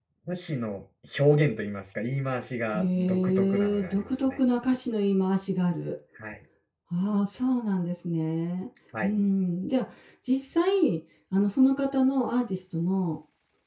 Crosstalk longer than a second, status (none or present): present